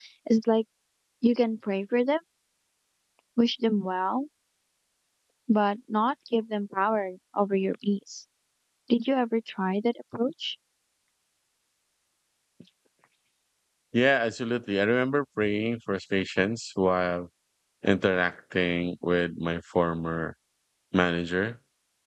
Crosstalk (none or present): none